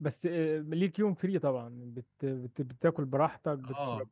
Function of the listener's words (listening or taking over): taking over